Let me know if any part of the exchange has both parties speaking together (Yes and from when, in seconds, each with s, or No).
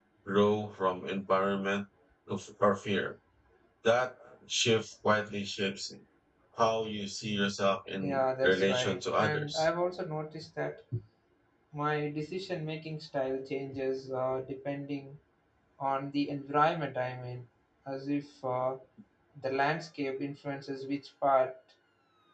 Yes, from 8.0 s